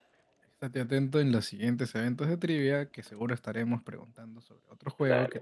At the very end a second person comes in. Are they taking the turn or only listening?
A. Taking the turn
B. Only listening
A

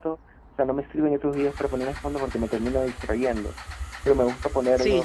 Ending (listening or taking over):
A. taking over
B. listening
A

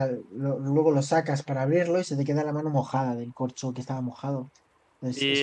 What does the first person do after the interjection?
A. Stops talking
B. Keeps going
A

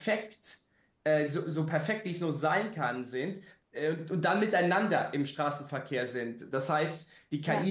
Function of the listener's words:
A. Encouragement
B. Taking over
A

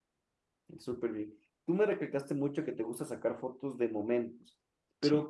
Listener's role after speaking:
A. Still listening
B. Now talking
A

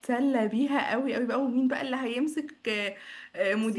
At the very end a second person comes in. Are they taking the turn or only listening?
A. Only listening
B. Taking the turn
A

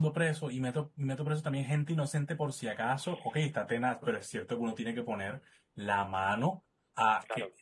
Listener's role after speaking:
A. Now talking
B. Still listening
B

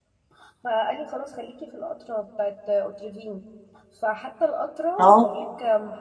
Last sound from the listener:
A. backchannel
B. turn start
A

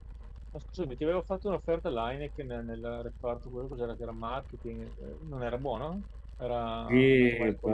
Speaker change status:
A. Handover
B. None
A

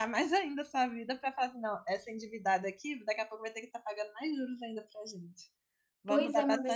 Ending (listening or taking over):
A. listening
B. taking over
B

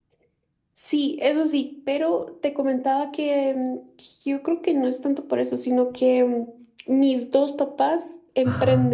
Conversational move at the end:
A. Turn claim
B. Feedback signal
A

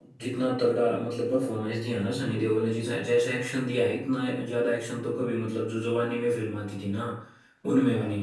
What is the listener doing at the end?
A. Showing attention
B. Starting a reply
A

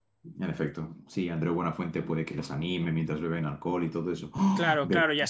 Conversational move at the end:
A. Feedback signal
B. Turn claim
B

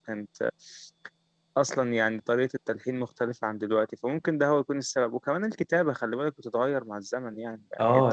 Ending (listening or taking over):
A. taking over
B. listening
A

